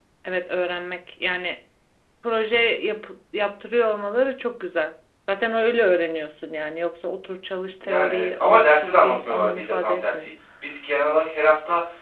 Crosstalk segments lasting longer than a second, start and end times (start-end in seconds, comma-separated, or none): 7.8-10.2